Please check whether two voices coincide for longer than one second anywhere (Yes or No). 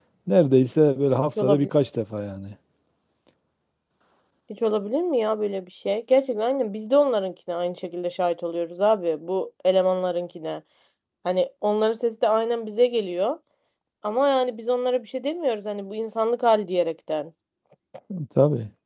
No